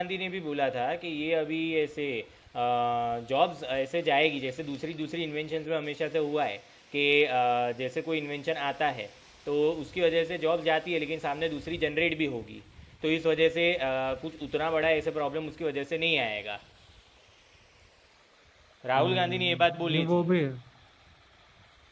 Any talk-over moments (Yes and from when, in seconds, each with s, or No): Yes, from 19.0 s